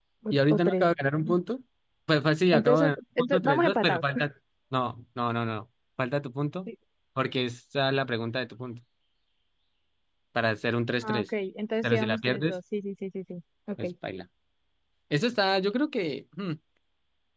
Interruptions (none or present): present